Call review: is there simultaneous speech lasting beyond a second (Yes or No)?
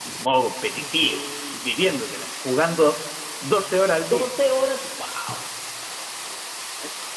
No